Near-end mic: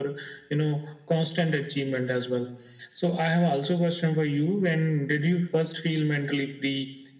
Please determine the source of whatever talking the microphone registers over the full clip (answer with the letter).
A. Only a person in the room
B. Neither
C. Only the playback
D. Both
C